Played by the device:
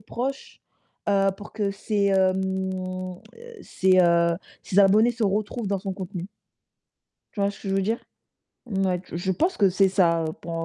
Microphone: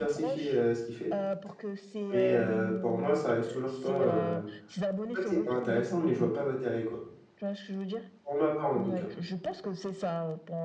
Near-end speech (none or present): present